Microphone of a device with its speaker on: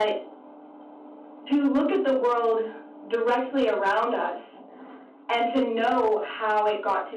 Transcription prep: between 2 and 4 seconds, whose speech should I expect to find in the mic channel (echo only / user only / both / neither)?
echo only